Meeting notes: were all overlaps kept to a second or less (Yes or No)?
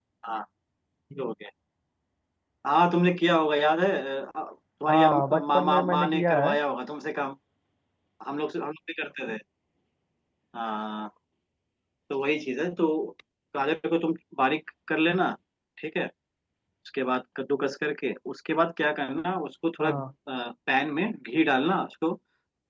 No